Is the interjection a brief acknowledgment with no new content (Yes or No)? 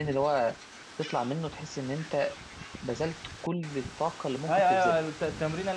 No